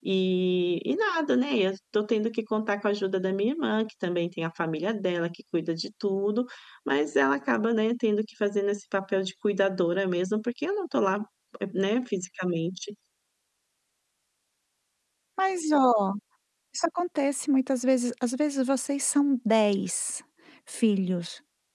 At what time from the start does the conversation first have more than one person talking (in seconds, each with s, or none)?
none